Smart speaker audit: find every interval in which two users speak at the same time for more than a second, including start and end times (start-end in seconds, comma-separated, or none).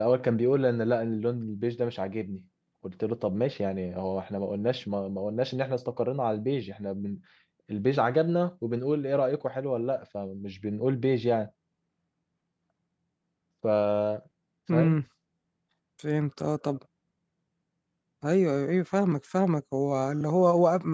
none